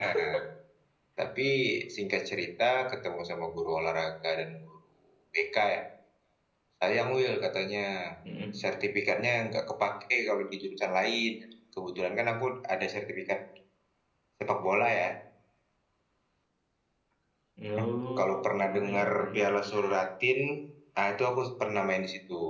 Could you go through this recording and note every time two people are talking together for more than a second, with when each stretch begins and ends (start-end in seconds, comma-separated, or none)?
18.2-19.6